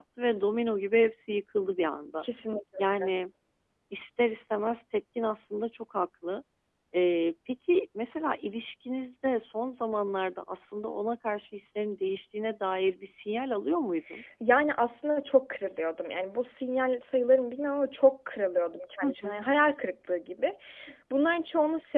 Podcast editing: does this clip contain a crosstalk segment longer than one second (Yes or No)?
No